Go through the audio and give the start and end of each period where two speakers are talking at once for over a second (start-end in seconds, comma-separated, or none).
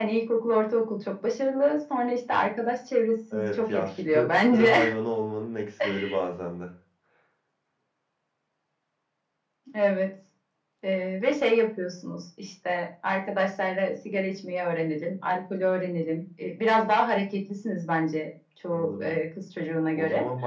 3.3-4.8